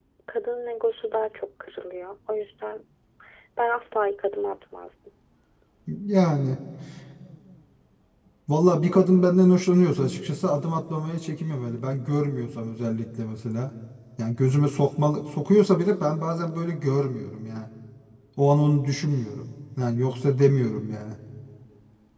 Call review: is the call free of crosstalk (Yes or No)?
Yes